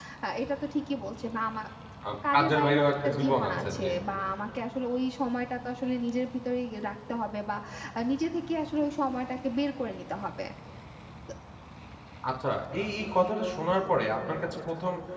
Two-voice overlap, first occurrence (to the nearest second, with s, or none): 2 s